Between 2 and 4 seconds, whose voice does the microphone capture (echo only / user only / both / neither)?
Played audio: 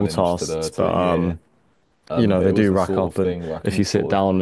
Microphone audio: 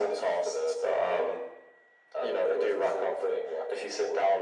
echo only